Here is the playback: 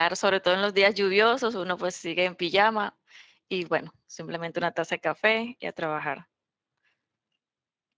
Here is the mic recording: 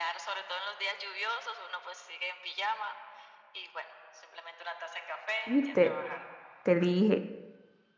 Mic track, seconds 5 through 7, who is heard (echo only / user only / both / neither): both